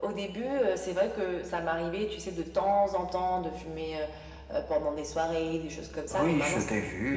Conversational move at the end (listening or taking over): taking over